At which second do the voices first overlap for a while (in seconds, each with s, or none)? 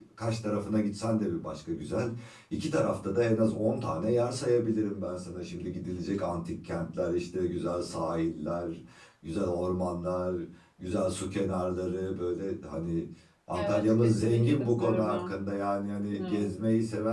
13.5 s